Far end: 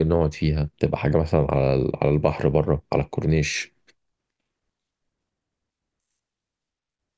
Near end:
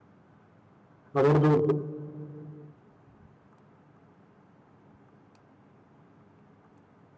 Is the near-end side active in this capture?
Yes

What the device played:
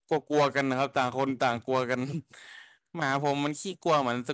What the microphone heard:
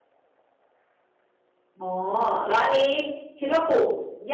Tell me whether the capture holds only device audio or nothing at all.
No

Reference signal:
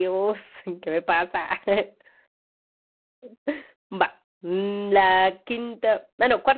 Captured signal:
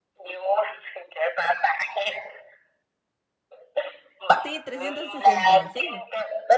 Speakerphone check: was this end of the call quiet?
No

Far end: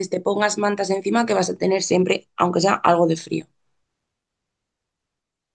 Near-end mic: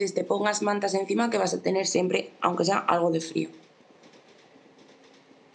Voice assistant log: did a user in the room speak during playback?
No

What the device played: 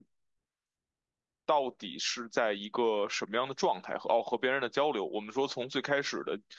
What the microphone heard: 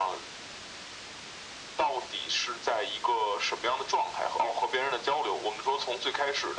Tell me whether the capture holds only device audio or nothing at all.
Yes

